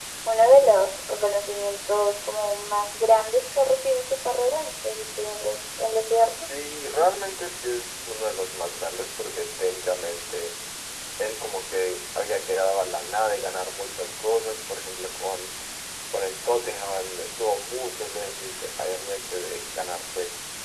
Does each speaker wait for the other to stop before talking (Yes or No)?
Yes